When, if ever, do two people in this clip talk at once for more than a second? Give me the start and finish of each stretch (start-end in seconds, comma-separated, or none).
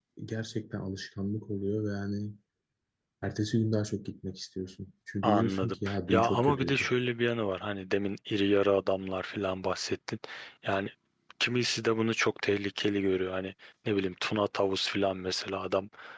5.2-6.9